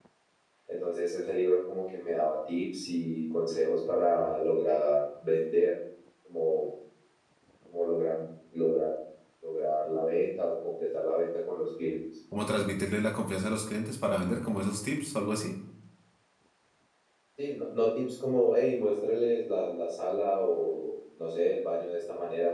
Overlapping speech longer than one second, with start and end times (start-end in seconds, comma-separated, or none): none